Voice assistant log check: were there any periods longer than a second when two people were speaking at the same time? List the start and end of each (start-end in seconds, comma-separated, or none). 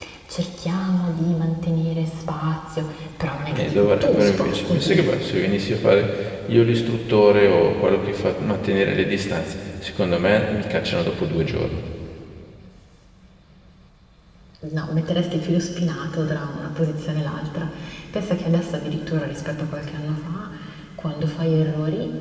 3.5-5.0